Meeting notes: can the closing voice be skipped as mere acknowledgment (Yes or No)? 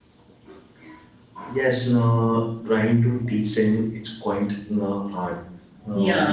Yes